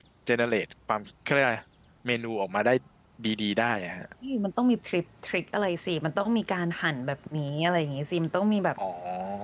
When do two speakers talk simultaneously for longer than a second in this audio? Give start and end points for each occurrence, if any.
none

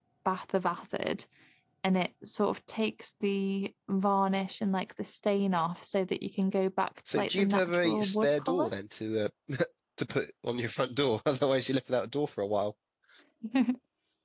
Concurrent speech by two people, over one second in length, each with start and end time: 7.2-8.7

